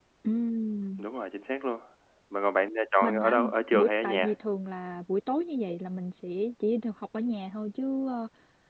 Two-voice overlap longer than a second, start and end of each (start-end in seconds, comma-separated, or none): 3.0-4.3